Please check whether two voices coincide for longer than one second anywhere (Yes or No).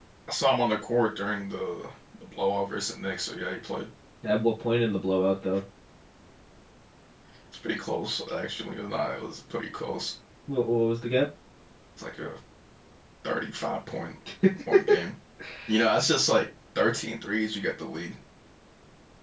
No